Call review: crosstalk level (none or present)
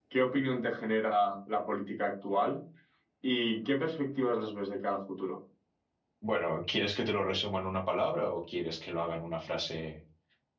none